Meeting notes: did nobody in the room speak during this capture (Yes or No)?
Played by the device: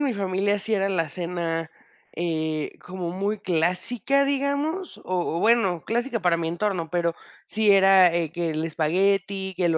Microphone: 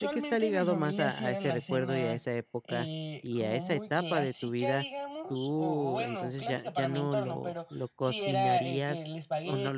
No